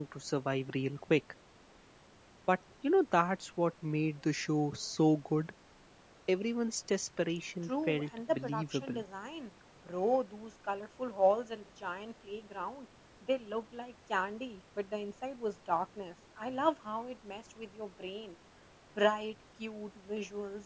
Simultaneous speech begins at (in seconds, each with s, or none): 7.7 s